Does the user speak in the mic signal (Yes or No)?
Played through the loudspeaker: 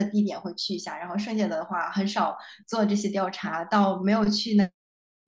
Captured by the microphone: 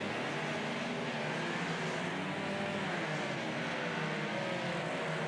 No